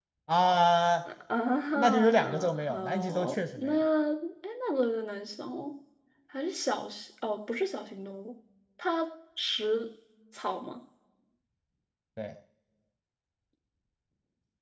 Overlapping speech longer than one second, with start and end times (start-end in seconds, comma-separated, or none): 1.8-3.7